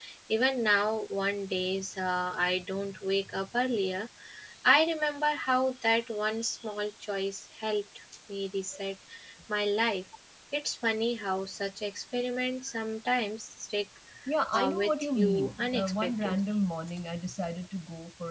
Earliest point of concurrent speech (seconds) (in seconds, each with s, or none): 14.5 s